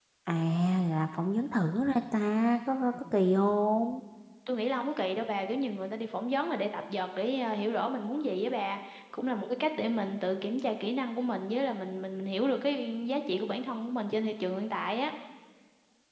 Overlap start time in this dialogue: none

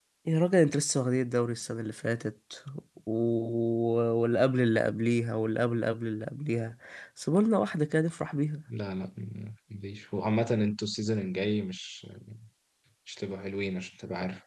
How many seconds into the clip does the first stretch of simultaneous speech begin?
none

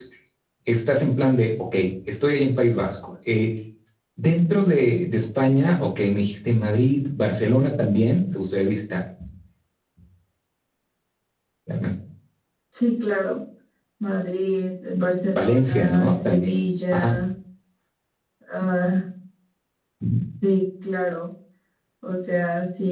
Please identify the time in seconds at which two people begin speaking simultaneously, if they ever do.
15.3 s

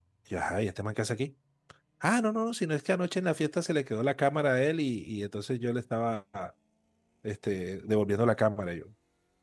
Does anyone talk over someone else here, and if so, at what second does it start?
none

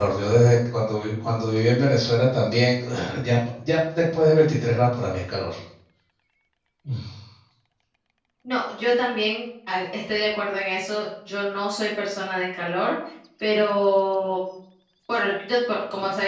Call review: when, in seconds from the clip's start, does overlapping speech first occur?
none

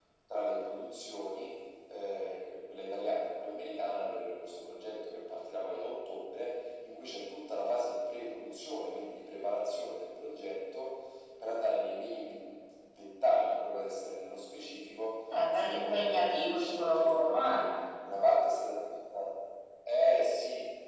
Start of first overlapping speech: 15.3 s

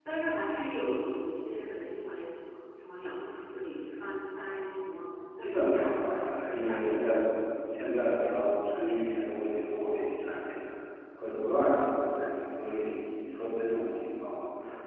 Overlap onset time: 5.4 s

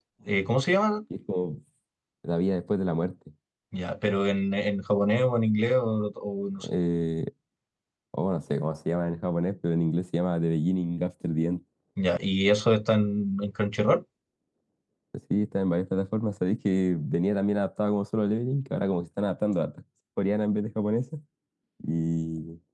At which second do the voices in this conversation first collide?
none

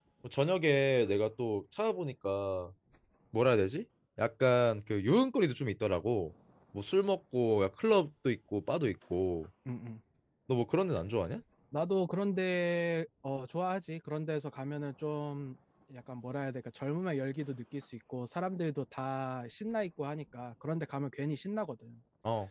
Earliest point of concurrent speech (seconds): none

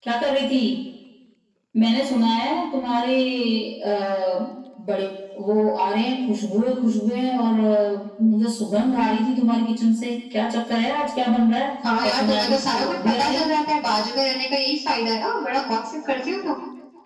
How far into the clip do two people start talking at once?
11.8 s

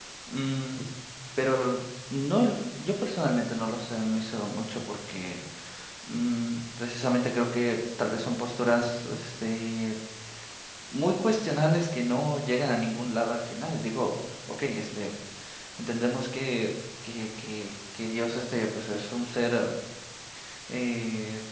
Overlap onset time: none

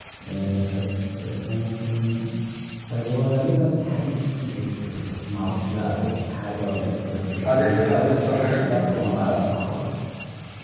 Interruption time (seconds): 7.3 s

